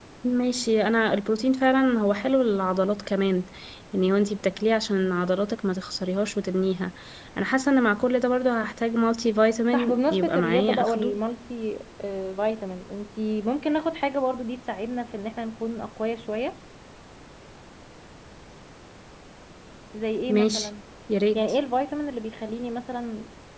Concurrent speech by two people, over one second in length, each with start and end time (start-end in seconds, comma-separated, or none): 9.7-11.2